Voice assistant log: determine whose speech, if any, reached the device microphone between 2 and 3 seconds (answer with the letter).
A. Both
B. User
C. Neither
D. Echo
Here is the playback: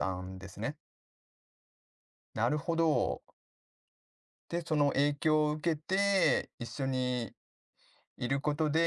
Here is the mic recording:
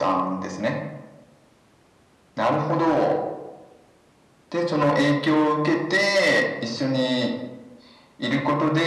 D